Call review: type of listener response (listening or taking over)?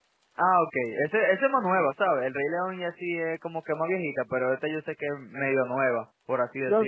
taking over